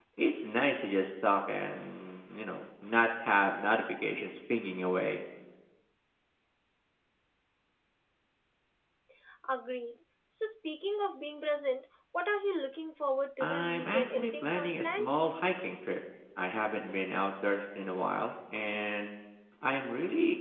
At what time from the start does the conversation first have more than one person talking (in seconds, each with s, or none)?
13.4 s